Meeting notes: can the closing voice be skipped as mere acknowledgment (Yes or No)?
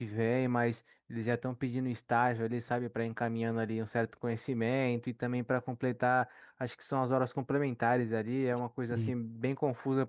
Yes